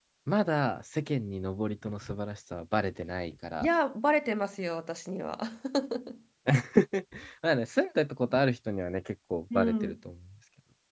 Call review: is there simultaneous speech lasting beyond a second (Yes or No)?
No